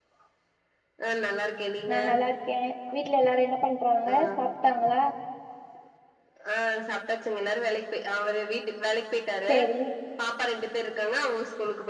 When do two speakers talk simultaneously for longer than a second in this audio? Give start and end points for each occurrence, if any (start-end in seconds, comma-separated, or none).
none